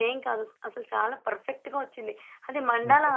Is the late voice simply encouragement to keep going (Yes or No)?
Yes